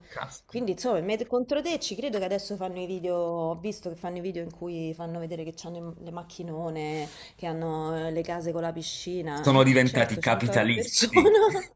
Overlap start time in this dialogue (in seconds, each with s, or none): 9.4 s